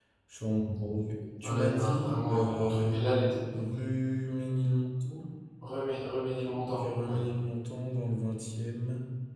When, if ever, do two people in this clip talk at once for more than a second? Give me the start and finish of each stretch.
1.4-3.0

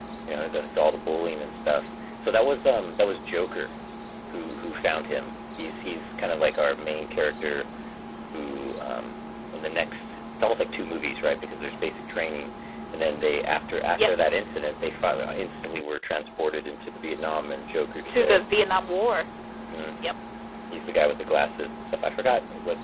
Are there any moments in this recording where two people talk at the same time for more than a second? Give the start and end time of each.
none

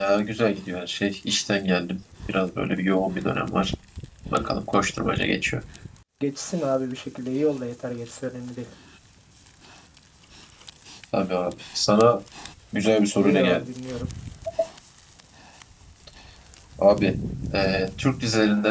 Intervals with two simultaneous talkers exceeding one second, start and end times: none

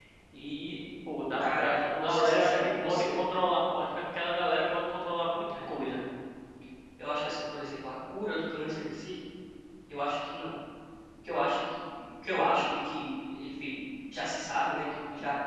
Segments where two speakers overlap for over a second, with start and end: 1.4-3.2

